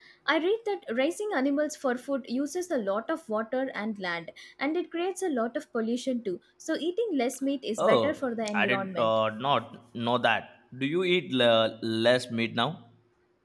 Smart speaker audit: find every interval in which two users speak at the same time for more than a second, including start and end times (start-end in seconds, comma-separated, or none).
7.8-9.1